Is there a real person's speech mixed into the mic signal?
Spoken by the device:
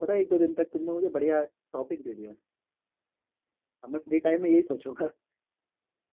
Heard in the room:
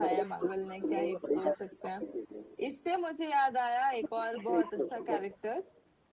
Yes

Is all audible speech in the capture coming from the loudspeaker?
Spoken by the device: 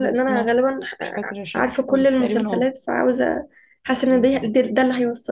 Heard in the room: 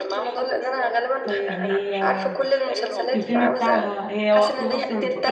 No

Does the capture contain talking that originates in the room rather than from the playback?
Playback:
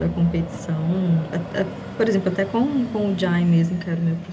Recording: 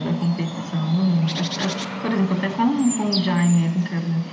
No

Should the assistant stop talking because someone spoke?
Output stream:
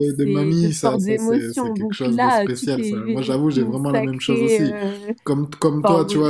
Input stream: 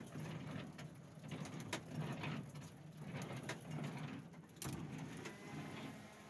No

